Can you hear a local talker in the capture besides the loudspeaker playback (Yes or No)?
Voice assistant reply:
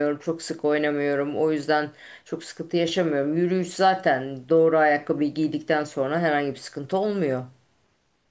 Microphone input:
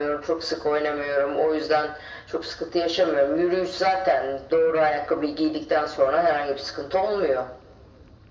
No